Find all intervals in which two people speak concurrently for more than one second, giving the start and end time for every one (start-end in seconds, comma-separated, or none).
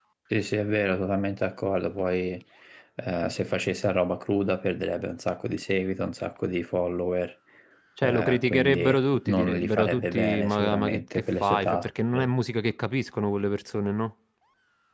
8.0-11.9